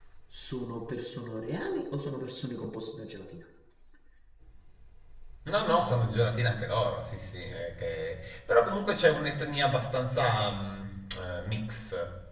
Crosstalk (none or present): none